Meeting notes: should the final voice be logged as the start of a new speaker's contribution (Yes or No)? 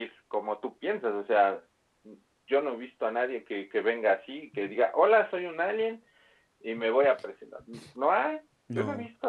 Yes